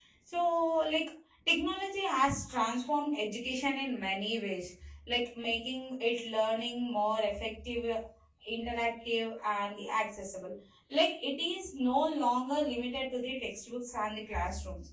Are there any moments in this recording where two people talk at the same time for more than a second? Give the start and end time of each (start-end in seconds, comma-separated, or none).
none